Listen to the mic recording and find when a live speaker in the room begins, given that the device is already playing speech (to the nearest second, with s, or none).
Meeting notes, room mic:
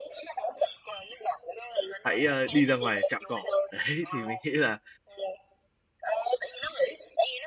2 s